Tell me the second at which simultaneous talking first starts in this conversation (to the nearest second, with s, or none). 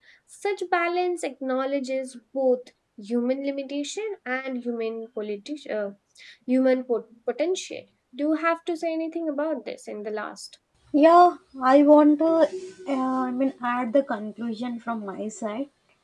none